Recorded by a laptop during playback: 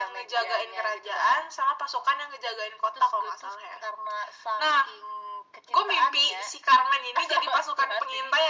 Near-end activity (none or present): none